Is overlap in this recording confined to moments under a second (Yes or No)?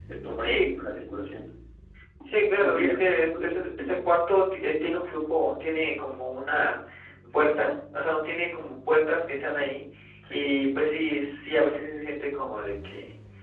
No